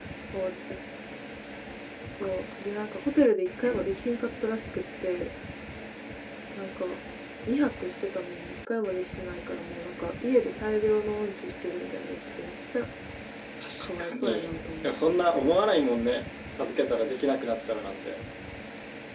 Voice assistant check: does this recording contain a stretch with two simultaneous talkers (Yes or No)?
Yes